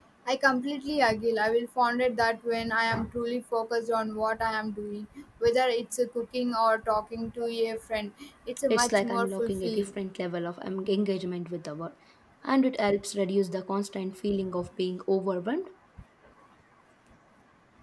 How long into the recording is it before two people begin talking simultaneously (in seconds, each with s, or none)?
8.7 s